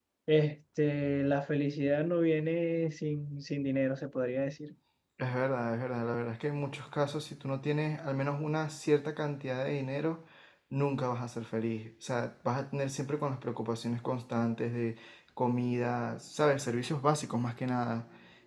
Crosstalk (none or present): none